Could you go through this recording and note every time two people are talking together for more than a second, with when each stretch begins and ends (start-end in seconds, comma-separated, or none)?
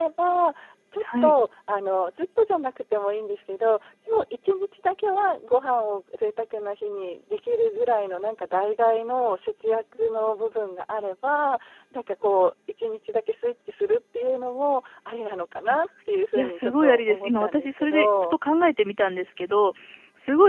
16.4-18.4